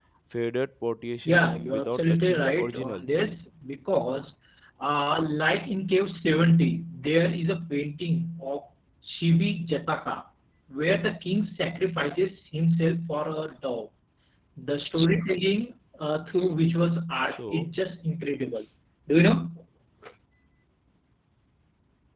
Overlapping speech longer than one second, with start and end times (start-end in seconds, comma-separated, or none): 1.2-3.0